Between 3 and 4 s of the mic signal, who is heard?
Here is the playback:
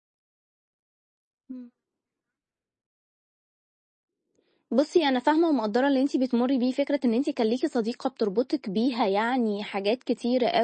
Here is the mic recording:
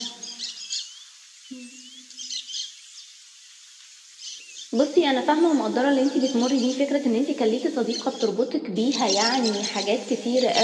neither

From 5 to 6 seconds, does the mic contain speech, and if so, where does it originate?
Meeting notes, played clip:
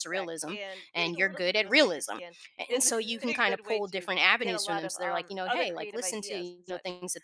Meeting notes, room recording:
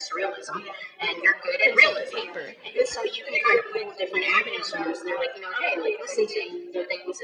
echo only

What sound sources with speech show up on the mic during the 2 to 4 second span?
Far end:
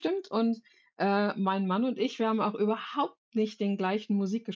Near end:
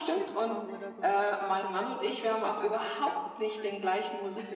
both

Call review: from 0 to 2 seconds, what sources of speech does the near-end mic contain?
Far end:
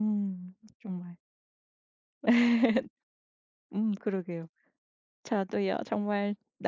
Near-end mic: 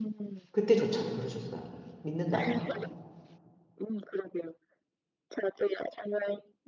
both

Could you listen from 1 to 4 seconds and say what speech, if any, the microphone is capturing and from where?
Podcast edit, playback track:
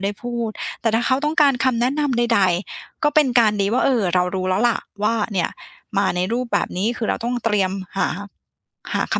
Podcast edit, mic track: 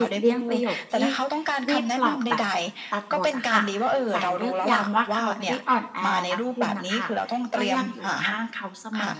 both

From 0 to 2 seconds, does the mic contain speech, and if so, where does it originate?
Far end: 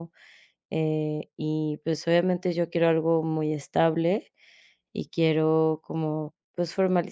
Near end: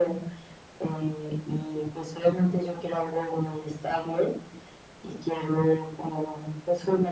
echo only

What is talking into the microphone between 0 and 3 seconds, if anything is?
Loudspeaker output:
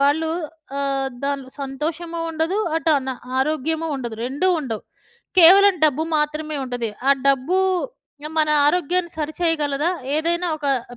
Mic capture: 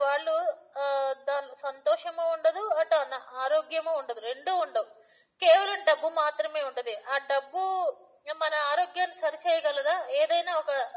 echo only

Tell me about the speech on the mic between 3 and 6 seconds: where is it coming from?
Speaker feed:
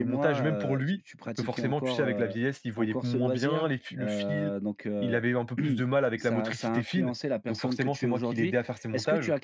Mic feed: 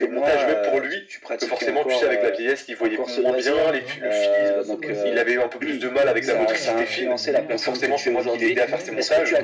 both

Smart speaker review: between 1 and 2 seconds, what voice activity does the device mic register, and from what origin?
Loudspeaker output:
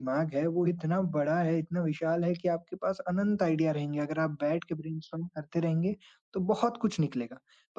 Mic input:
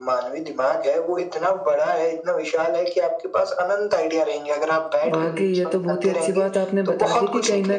echo only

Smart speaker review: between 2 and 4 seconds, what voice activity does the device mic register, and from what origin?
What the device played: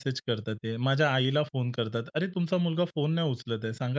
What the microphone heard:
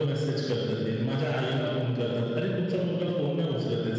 echo only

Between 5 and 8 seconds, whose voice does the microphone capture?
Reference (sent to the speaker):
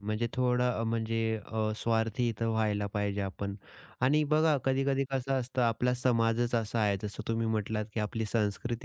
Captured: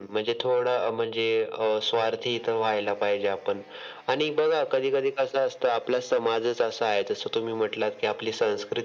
echo only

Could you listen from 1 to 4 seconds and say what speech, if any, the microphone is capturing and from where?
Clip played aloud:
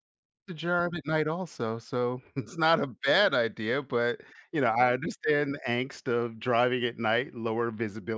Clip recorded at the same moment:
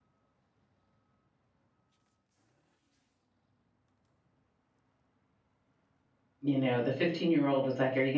neither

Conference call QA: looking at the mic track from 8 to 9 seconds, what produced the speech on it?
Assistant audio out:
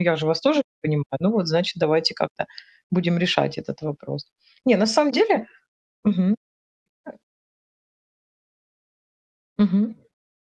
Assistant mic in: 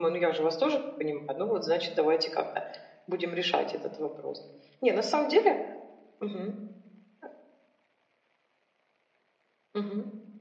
neither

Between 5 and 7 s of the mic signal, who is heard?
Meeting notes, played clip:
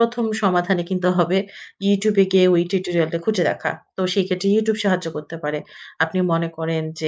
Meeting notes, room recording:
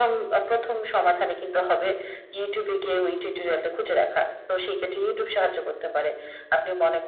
echo only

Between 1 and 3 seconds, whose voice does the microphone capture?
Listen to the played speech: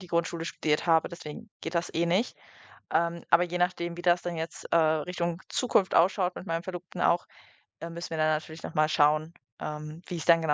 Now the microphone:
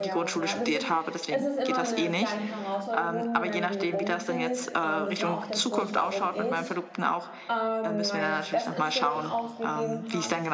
both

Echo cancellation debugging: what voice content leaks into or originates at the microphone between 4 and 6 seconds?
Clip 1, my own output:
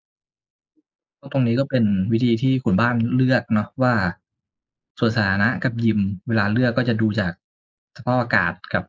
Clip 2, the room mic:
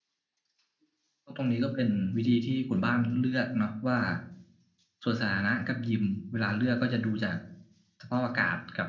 echo only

